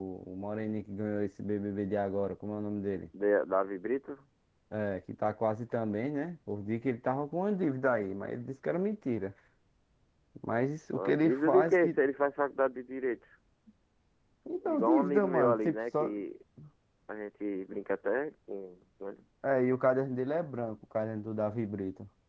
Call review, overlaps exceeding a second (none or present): present